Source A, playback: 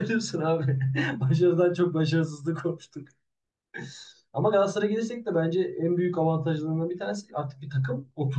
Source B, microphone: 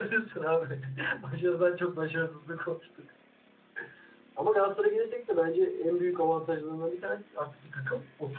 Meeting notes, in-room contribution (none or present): none